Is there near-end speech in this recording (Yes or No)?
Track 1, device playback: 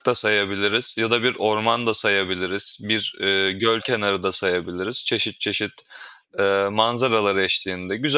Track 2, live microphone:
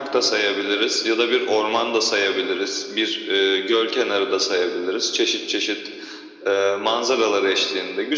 No